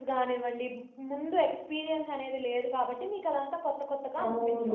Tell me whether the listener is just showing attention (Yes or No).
No